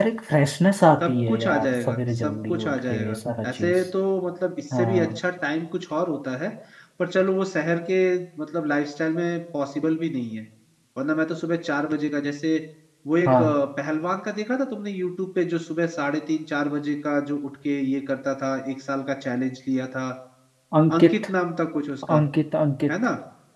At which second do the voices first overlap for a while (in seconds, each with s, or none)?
1.0 s